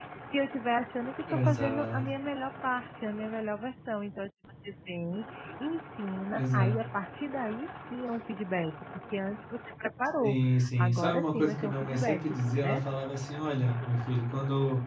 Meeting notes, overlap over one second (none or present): present